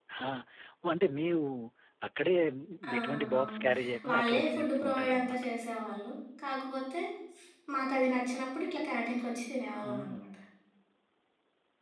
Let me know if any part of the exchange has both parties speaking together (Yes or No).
Yes